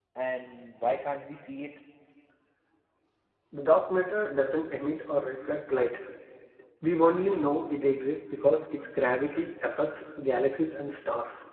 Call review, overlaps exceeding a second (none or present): none